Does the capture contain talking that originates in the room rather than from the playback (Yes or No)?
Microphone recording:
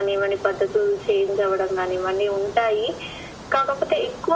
No